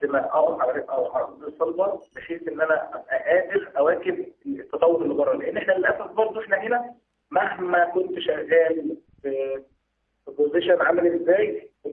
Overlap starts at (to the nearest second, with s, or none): none